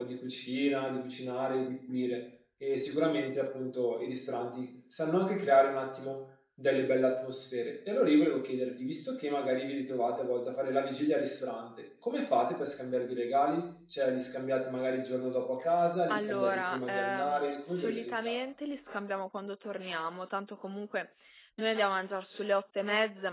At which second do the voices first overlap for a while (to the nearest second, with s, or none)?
16 s